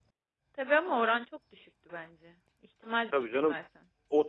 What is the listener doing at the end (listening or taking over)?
taking over